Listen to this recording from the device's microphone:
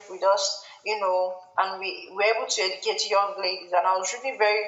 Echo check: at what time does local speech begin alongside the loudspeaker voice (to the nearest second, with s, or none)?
none